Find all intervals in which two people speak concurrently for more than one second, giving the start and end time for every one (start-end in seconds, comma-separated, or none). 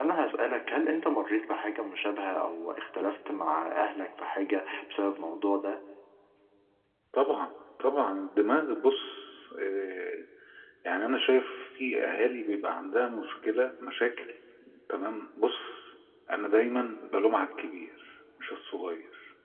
none